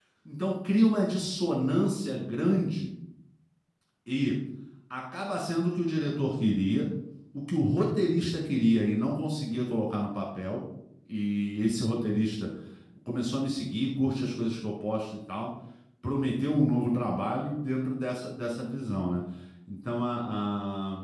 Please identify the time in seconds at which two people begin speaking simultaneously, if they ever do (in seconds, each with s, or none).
none